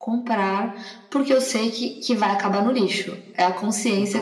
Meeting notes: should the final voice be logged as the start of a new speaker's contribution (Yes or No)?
Yes